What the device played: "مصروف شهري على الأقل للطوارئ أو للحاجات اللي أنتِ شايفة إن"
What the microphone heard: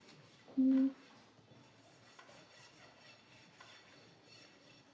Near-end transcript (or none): إمم.